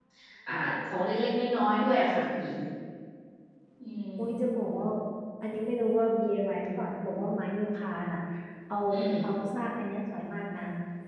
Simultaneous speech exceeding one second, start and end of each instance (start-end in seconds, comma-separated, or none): none